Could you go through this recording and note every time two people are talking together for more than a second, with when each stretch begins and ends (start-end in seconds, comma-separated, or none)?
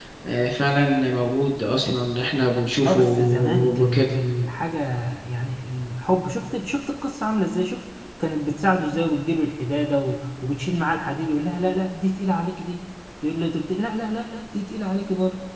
2.9-4.2